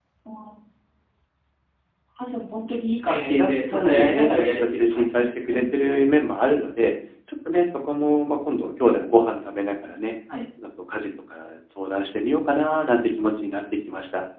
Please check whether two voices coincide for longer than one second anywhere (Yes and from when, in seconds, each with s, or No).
Yes, from 3.1 s